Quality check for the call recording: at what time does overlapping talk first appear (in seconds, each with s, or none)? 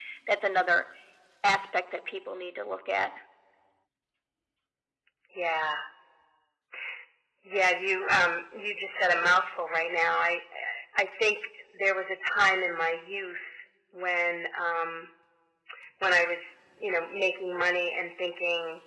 none